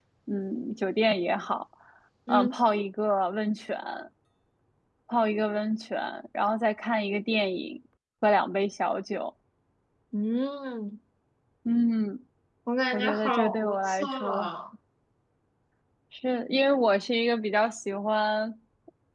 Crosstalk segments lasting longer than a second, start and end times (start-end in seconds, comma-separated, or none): 12.9-14.5